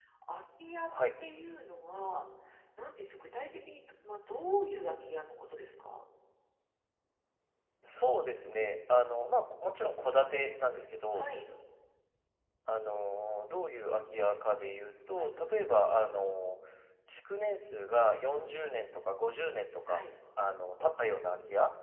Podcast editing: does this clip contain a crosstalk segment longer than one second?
No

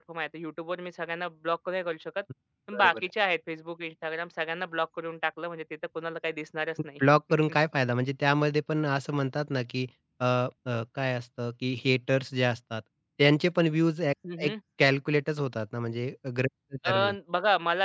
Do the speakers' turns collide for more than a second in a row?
No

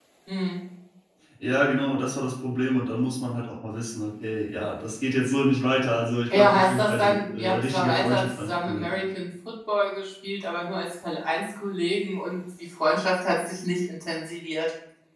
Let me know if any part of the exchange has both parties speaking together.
Yes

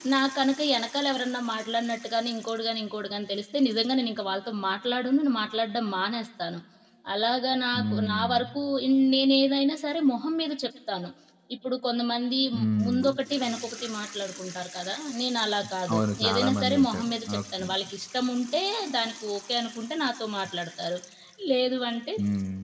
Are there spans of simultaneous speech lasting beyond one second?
Yes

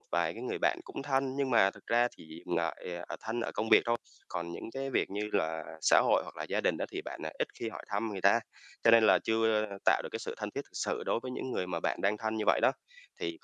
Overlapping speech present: No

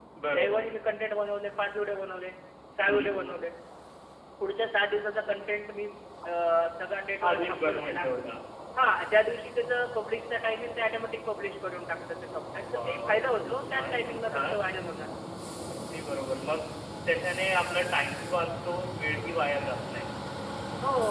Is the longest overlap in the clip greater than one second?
Yes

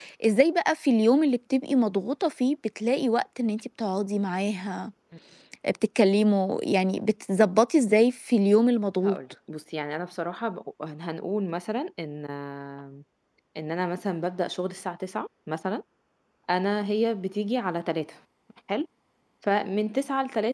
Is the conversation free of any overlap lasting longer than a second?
Yes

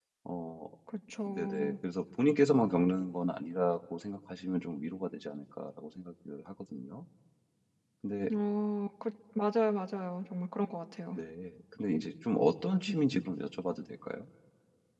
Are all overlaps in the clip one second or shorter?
Yes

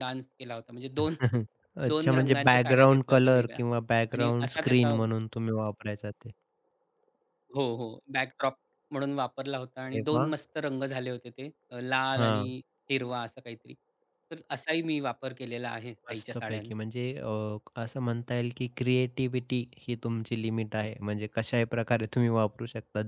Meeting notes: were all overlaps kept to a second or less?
No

